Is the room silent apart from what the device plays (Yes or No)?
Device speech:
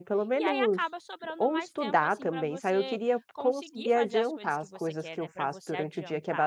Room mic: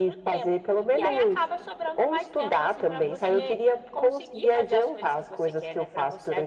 No